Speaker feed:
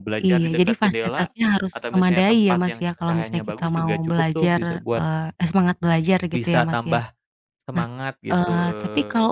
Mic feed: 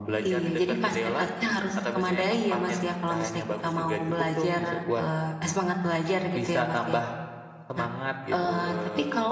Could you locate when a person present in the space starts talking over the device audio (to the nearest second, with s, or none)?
none